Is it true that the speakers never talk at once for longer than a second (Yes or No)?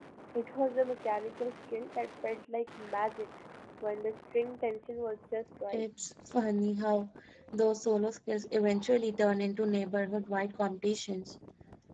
Yes